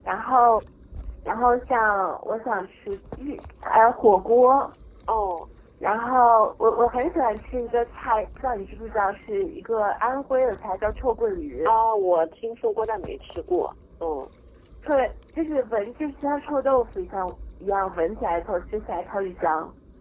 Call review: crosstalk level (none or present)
none